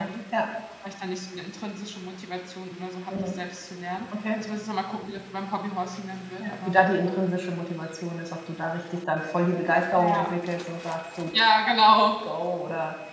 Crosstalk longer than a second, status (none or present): none